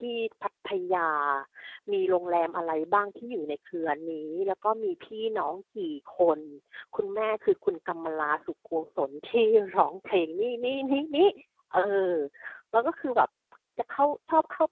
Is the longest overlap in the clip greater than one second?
No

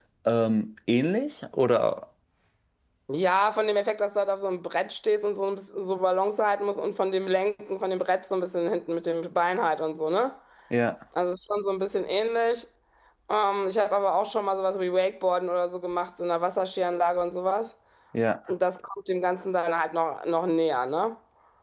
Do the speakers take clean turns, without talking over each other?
Yes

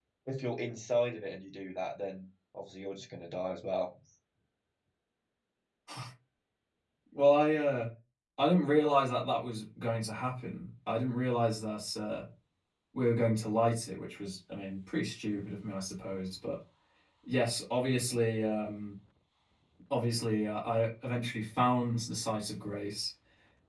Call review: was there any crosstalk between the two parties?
No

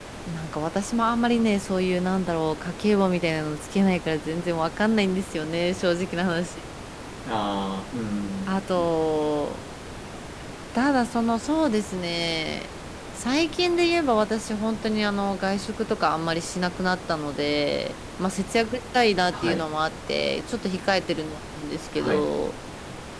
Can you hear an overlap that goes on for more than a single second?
No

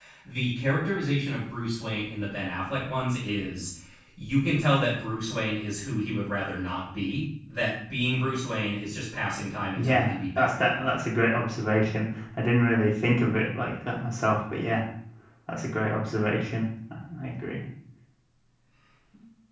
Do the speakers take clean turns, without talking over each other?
No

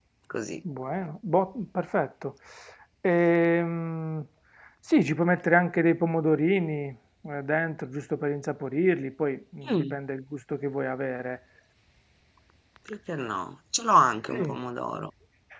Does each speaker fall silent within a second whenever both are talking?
Yes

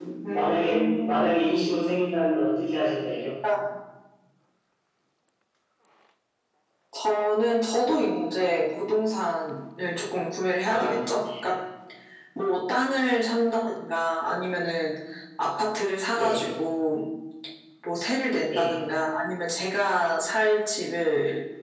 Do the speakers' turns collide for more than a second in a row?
Yes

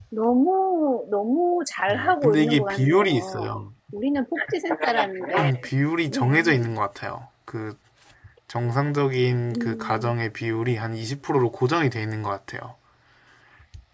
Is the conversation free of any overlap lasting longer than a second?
No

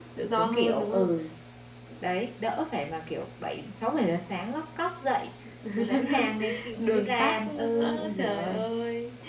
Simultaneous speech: Yes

